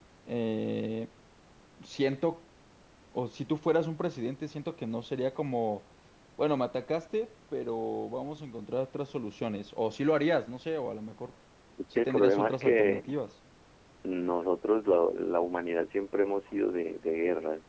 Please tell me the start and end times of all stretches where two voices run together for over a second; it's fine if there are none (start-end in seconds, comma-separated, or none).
11.9-13.2